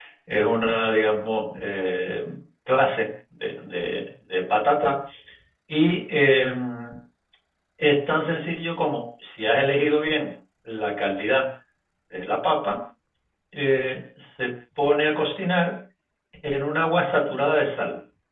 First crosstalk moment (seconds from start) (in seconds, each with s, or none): none